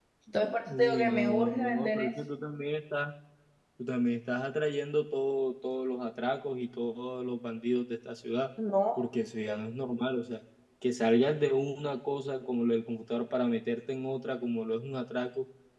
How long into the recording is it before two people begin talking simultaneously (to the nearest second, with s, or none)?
1 s